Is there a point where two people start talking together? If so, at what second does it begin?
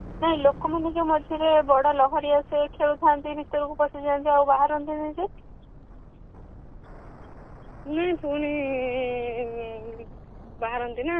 none

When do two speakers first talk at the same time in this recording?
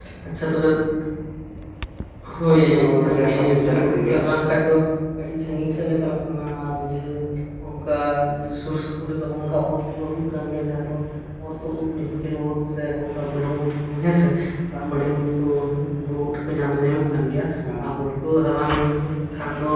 3 s

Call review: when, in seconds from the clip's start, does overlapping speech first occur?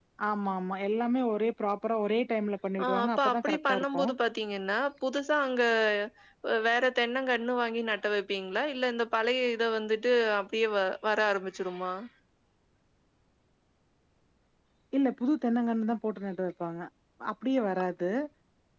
3 s

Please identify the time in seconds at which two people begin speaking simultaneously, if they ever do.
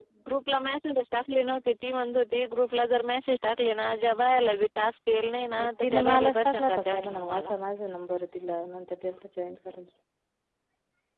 6 s

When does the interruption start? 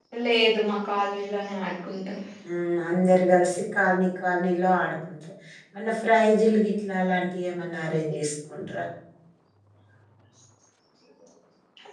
none

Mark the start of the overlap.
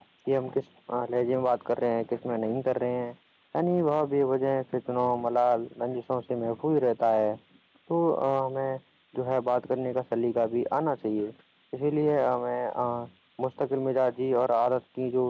none

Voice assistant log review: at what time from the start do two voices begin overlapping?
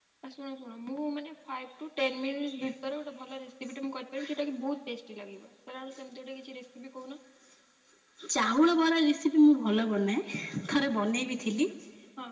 none

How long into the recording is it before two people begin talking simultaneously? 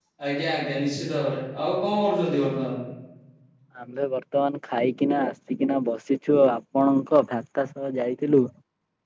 none

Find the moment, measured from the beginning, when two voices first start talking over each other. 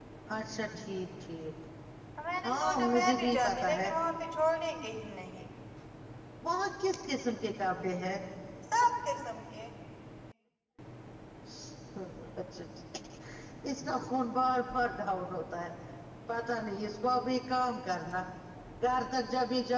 2 s

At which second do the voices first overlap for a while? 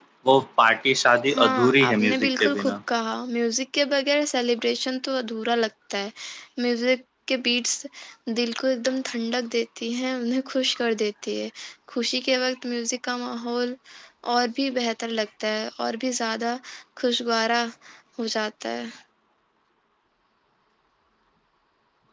1 s

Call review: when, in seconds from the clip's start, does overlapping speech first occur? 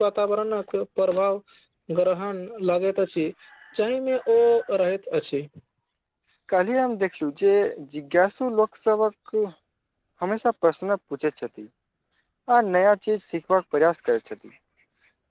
none

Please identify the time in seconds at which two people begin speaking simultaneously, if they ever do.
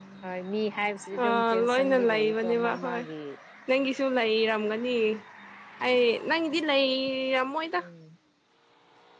1 s

